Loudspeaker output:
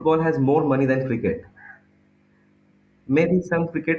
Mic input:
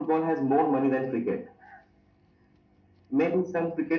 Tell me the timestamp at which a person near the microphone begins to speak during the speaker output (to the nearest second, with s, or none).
none